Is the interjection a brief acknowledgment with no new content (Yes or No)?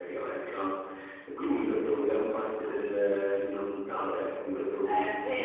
No